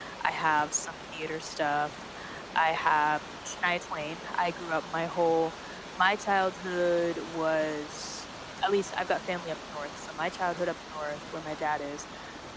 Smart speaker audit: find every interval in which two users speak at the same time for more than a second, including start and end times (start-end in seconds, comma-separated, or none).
none